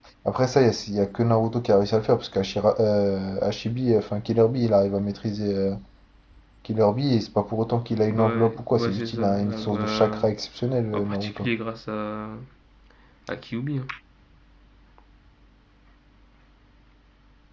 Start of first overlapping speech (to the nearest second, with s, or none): 8 s